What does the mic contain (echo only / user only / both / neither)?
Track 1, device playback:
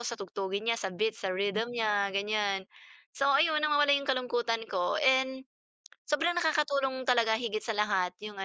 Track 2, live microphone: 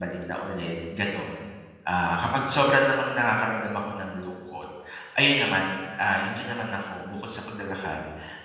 user only